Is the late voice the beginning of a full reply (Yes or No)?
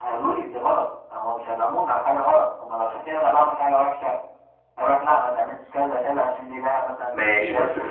Yes